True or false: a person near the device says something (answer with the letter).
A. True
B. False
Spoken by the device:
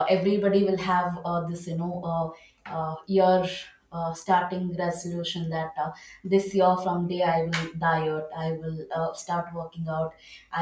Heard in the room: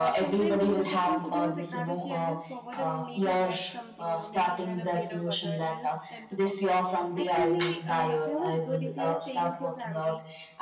A